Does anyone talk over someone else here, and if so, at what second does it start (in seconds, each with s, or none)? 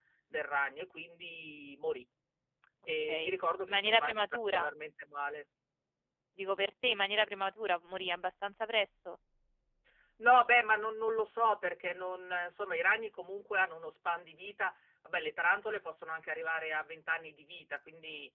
3.1 s